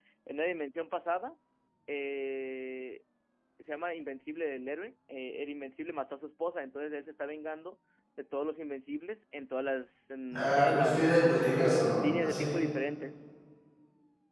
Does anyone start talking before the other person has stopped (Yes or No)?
Yes